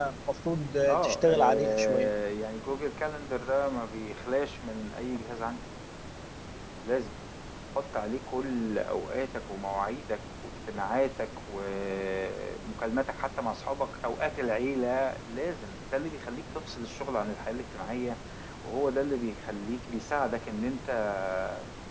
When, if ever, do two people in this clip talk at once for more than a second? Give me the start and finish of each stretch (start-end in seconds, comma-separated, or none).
0.9-2.1